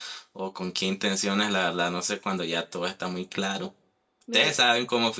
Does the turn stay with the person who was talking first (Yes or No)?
Yes